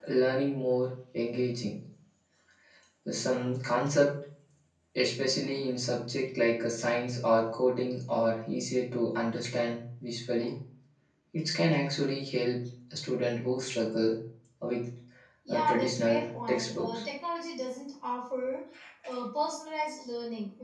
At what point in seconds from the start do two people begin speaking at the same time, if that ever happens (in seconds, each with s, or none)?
15.5 s